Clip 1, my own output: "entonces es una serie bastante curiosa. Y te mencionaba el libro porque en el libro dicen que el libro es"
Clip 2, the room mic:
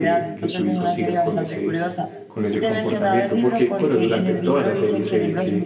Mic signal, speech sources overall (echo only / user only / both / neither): both